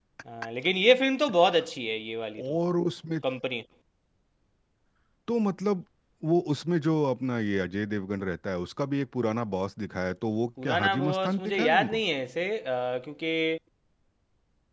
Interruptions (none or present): present